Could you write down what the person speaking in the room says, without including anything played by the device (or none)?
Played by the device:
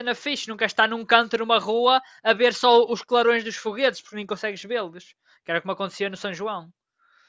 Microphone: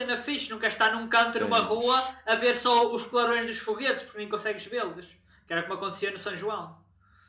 tens,